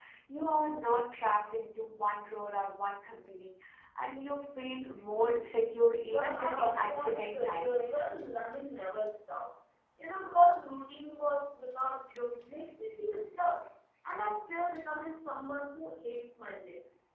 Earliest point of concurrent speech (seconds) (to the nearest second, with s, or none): 6 s